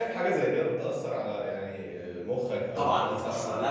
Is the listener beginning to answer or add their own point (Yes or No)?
Yes